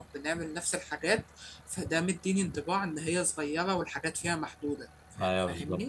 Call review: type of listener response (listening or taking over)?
taking over